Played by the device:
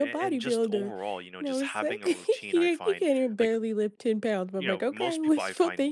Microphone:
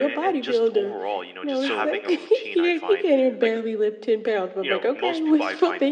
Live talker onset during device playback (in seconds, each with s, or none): 1.6 s